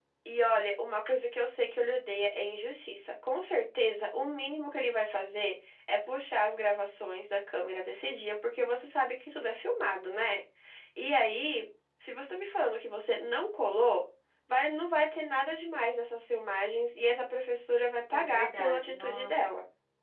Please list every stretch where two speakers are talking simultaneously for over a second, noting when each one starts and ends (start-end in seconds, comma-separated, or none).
18.1-19.3